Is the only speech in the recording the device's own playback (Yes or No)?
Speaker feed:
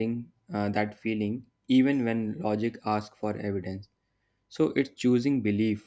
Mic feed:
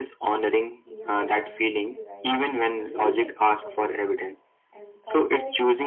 No